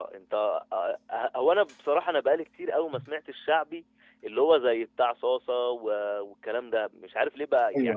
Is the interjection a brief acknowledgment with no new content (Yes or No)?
Yes